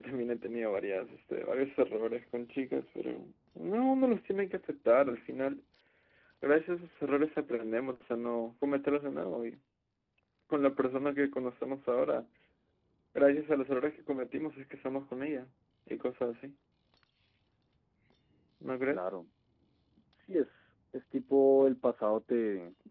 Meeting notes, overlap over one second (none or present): none